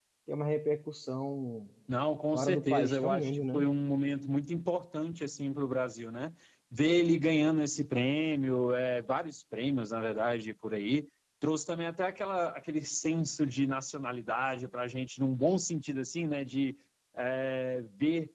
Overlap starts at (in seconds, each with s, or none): 2.3 s